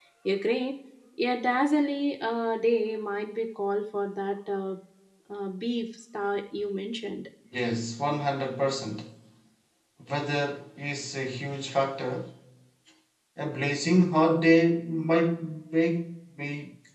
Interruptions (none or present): none